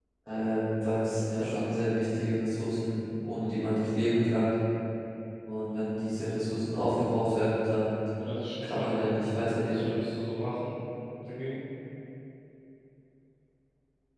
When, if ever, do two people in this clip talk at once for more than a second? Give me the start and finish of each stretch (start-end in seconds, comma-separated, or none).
8.6-9.9